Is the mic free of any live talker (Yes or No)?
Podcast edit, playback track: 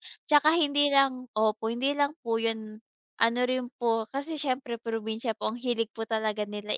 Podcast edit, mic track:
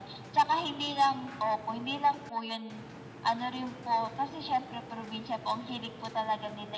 Yes